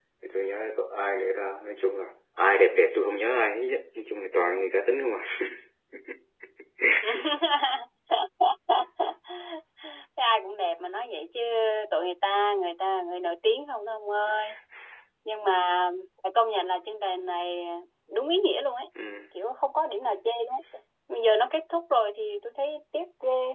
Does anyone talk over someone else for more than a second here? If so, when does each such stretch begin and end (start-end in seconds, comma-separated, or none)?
none